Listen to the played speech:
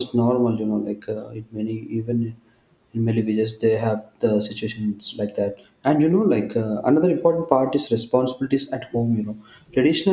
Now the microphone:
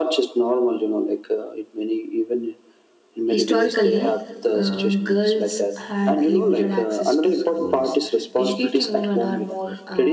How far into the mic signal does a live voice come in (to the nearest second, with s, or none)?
3 s